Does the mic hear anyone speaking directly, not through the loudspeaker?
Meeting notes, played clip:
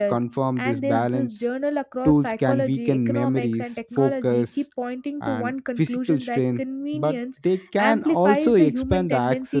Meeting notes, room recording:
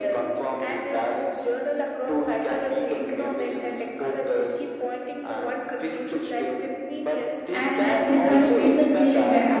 Yes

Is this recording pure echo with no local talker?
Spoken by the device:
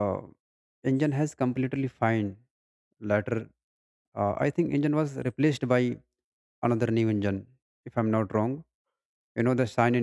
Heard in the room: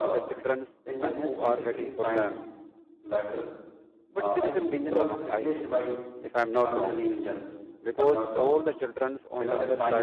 No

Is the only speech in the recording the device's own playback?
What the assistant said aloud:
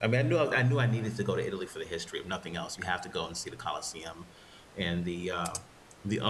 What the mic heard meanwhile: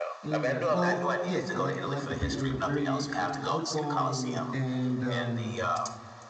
No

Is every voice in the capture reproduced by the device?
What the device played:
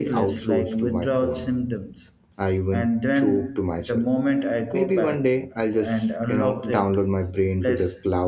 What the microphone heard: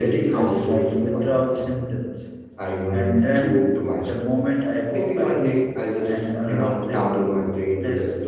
Yes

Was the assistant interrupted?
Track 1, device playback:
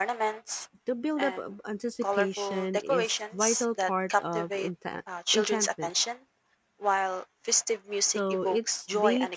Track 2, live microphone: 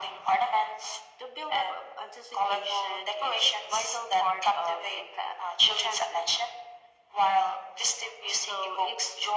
No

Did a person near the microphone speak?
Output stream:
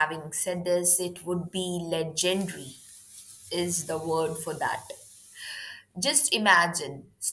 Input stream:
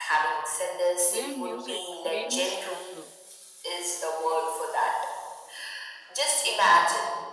Yes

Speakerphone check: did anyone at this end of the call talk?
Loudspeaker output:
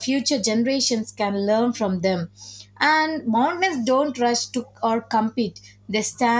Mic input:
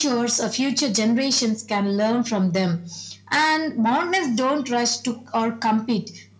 No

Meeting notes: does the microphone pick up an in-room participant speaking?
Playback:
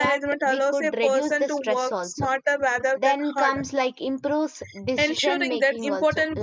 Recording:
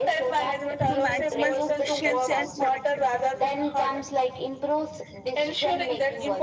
Yes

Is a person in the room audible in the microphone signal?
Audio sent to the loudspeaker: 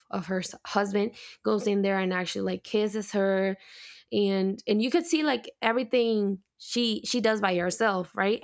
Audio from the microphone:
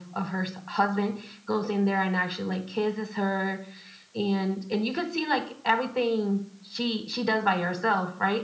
No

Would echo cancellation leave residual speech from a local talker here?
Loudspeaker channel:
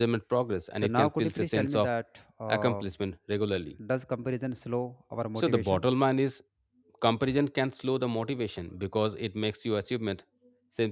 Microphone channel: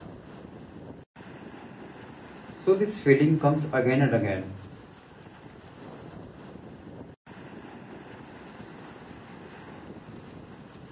Yes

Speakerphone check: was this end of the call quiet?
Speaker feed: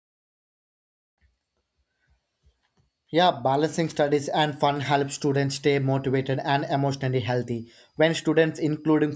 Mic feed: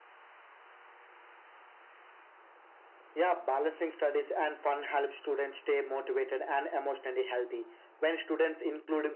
Yes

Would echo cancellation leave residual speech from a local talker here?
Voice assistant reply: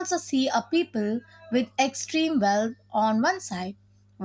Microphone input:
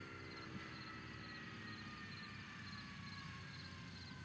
No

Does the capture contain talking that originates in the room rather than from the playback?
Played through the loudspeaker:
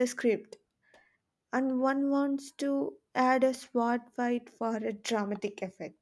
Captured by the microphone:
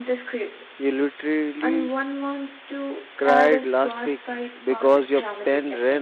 Yes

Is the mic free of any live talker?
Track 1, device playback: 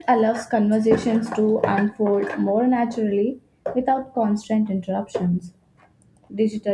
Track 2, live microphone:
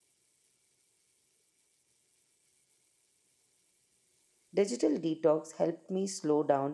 No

